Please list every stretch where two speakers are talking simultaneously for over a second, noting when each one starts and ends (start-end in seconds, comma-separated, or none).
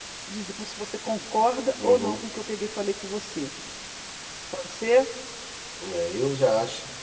none